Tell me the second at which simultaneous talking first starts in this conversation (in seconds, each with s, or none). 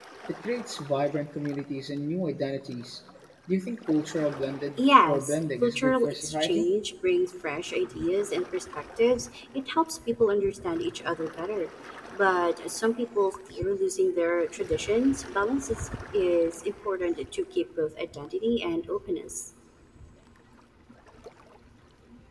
4.8 s